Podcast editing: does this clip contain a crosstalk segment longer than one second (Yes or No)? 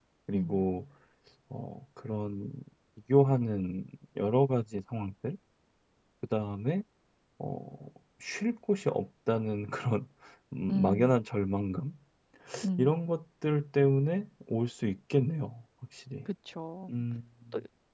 No